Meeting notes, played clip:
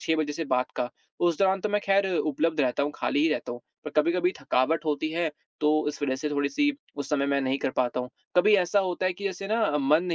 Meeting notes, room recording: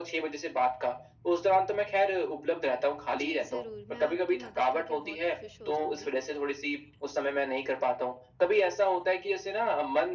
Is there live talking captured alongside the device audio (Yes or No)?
Yes